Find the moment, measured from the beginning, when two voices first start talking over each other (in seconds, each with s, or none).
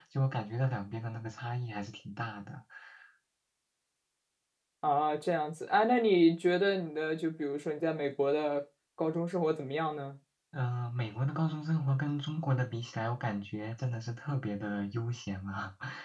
none